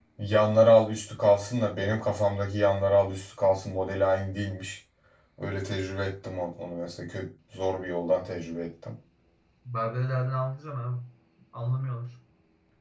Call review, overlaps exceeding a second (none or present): none